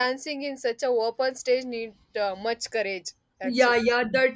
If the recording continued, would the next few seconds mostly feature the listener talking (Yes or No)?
Yes